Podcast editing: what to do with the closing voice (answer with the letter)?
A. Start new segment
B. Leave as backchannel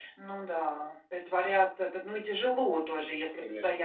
B